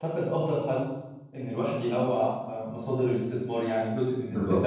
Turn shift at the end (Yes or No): No